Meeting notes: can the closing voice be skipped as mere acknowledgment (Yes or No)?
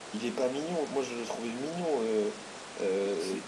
No